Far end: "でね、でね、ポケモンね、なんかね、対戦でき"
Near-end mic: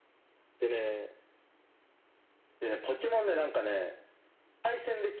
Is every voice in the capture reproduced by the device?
Yes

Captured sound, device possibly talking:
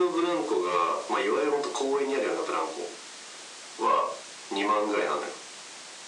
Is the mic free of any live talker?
Yes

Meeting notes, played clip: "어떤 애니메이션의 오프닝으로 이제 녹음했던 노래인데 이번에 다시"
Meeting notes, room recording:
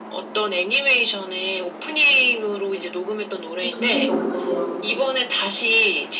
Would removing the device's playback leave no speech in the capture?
No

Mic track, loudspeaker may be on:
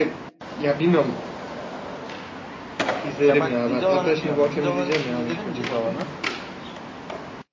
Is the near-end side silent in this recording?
Yes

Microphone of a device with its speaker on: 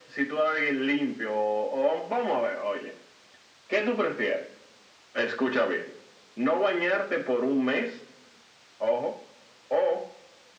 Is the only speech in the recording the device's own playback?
Yes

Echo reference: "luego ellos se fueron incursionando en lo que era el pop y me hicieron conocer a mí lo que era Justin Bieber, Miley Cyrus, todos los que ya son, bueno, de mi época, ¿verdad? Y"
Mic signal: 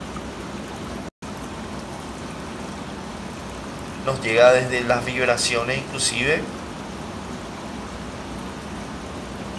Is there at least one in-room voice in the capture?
Yes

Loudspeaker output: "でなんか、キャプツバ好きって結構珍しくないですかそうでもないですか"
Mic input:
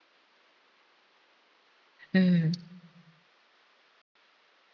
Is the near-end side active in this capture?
Yes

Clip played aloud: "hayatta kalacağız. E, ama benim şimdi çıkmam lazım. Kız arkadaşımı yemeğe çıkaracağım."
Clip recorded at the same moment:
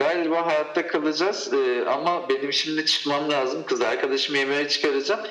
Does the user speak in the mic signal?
No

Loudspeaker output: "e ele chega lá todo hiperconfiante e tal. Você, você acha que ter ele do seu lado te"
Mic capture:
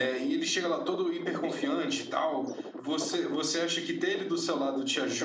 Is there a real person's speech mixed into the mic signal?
No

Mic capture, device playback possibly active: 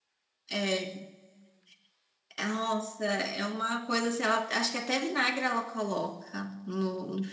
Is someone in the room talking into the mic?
Yes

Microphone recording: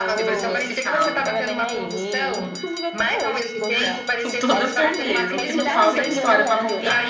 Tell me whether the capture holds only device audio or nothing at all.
No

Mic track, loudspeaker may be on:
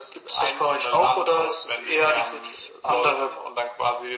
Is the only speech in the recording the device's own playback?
Yes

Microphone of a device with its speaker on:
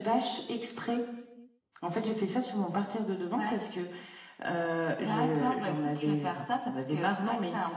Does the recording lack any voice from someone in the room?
Yes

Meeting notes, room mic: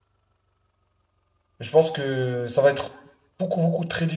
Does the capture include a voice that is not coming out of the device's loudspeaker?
Yes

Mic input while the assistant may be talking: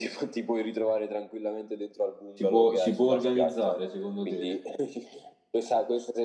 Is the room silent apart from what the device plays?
No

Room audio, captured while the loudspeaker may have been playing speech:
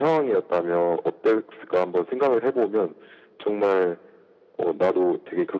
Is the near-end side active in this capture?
No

